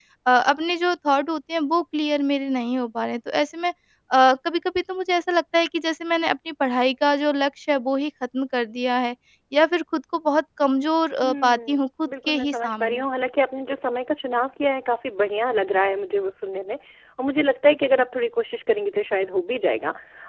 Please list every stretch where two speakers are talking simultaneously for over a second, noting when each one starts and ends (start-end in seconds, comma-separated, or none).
11.2-13.0